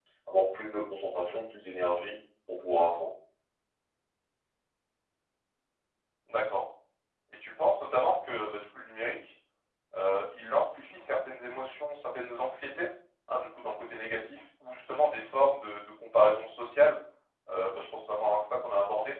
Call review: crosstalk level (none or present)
none